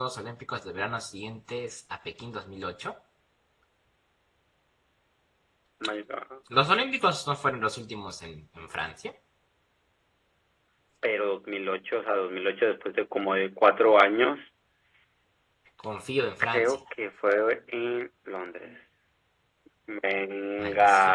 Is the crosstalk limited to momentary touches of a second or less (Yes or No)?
Yes